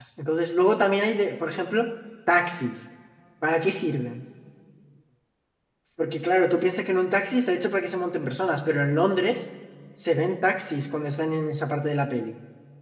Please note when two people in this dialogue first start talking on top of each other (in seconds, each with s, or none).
none